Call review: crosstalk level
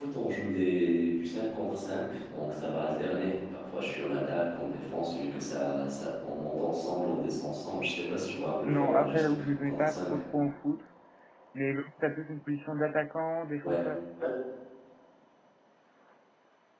present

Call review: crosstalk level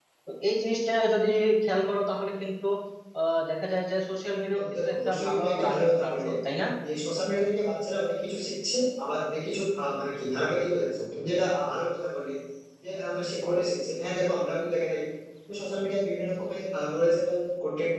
present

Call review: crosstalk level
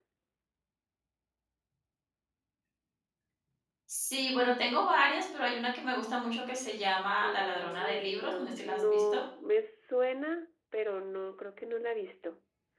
present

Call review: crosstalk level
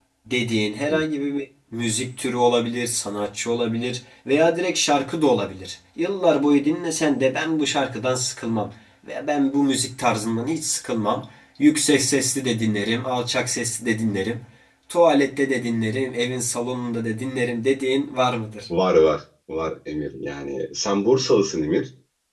none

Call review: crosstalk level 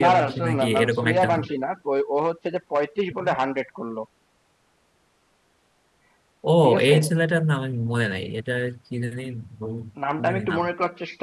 present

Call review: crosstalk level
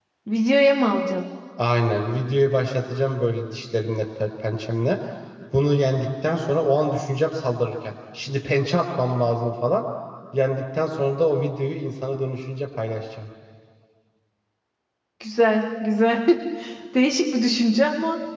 none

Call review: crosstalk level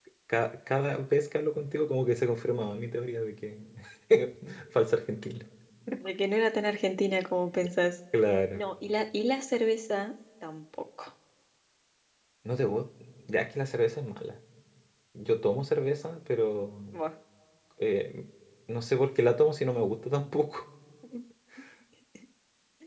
none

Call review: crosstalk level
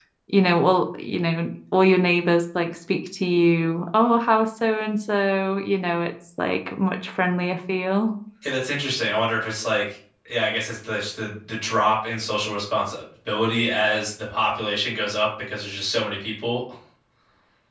none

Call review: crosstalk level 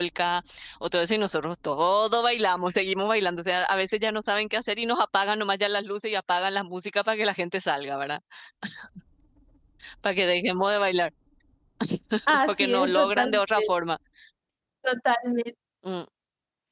present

